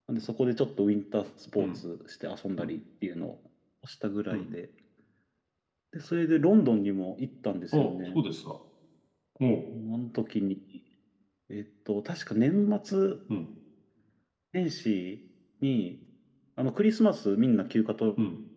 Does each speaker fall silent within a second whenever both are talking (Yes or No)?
Yes